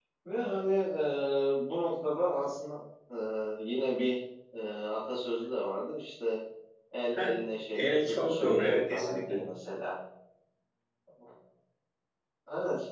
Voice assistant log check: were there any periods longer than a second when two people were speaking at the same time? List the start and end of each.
7.7-9.4

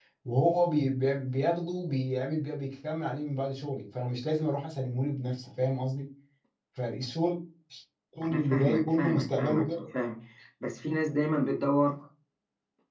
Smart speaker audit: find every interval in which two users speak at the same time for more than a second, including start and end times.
8.3-9.6

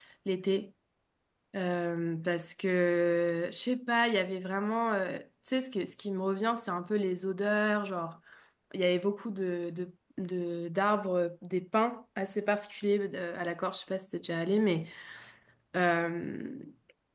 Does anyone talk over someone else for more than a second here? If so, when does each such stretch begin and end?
none

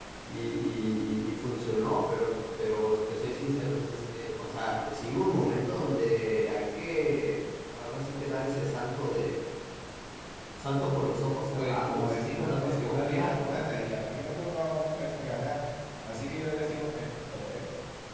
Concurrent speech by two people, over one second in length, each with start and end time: 11.5-13.6

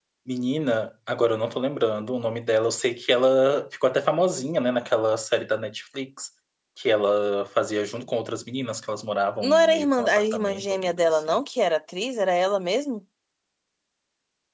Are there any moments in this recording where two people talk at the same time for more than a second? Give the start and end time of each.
9.4-11.4

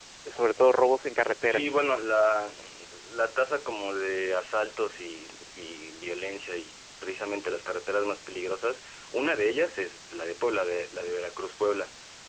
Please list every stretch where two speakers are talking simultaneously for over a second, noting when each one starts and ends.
none

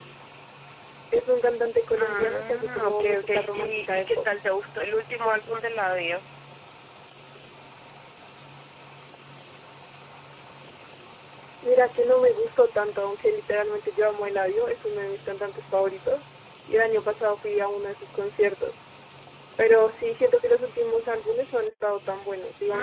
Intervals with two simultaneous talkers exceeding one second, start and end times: 2.0-4.2

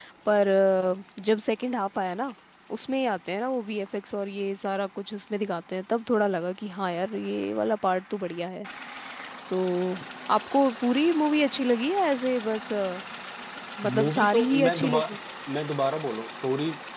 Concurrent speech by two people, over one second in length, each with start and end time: 13.9-15.2

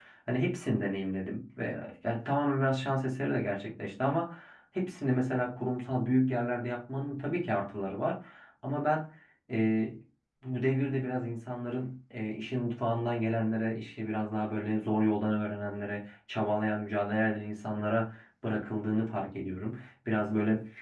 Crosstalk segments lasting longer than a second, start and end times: none

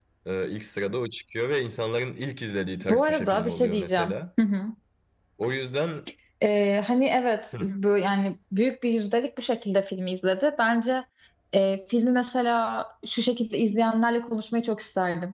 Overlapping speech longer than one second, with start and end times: 2.8-4.2

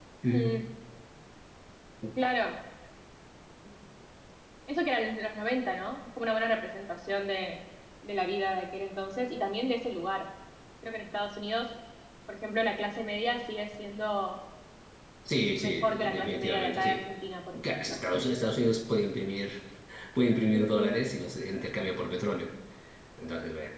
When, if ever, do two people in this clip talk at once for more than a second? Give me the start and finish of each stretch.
15.5-17.0

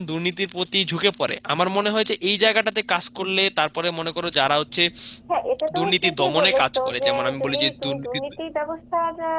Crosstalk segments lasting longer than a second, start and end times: 5.8-8.1

